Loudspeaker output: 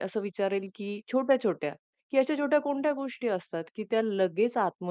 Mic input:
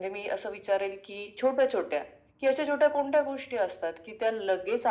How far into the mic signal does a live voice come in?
none

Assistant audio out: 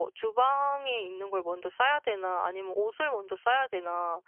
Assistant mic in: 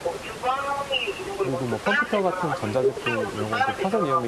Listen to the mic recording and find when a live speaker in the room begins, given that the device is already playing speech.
1.4 s

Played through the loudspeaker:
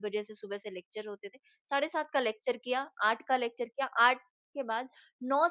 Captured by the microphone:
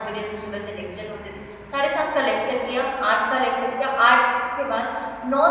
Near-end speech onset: none

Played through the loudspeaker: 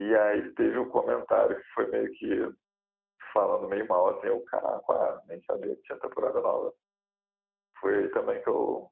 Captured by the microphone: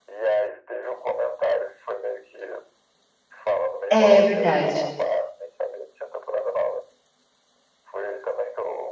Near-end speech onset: 3.9 s

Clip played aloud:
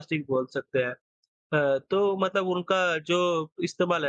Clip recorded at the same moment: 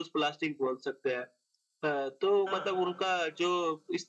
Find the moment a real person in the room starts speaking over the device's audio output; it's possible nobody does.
2.5 s

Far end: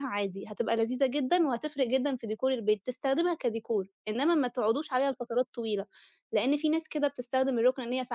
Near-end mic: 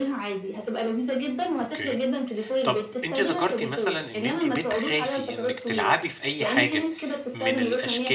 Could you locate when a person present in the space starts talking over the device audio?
1.6 s

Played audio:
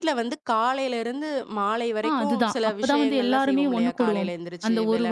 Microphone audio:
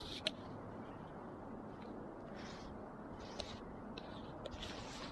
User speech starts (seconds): none

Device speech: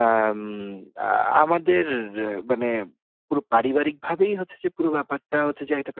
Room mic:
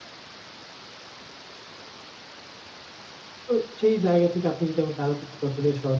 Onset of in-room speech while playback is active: 3.5 s

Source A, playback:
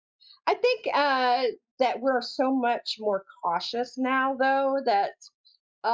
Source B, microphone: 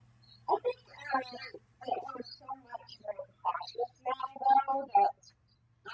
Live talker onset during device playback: none

